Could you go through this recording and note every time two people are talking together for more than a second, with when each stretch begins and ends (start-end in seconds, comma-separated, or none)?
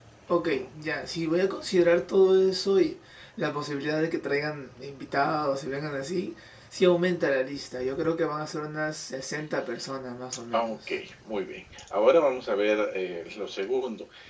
none